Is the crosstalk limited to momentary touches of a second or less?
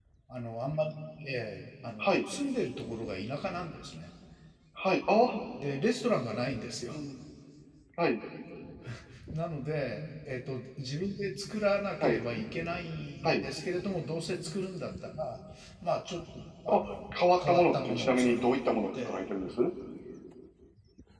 No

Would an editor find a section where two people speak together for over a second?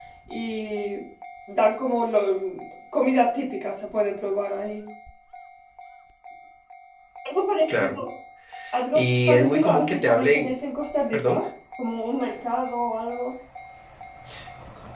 Yes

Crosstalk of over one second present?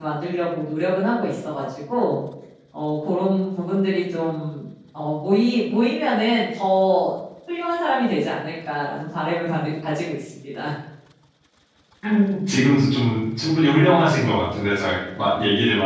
No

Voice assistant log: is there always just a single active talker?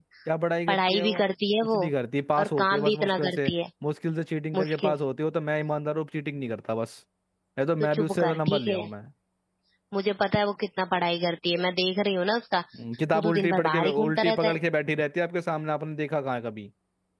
No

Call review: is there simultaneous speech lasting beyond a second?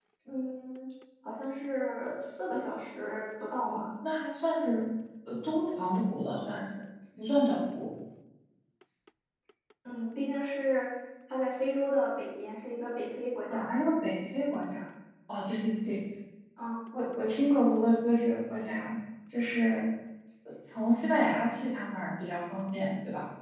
No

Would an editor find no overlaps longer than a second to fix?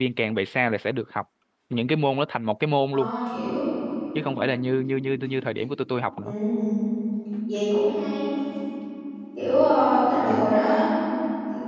Yes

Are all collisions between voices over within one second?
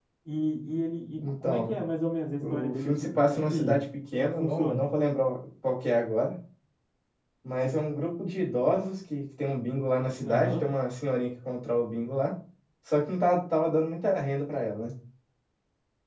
No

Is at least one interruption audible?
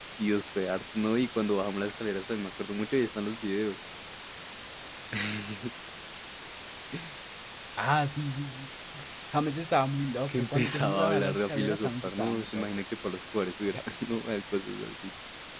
Yes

